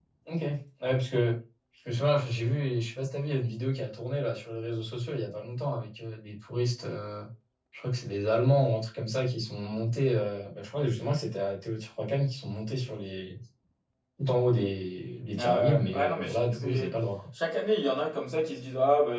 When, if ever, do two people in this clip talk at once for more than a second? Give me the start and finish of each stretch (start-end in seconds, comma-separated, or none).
15.4-16.9